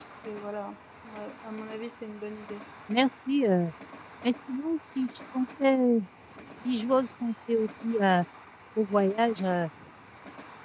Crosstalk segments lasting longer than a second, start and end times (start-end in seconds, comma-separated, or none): none